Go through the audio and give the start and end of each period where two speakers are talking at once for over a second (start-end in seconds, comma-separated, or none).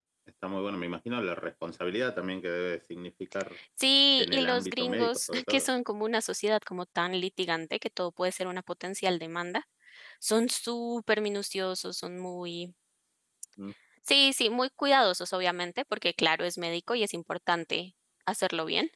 4.2-5.7